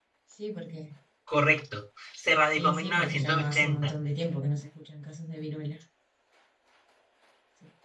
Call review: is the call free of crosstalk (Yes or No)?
No